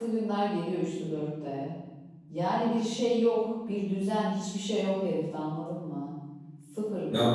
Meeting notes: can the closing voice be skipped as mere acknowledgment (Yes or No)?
No